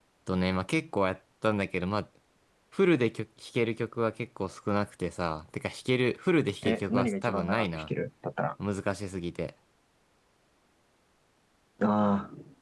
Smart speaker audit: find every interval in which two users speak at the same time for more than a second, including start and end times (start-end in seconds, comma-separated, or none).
6.6-7.9